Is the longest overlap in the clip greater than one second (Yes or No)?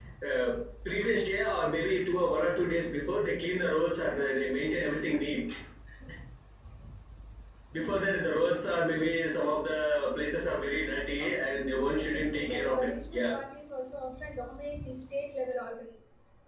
Yes